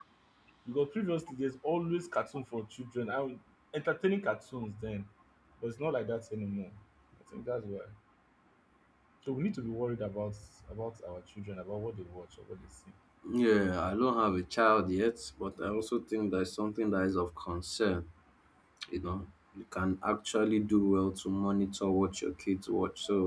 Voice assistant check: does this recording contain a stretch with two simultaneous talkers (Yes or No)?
No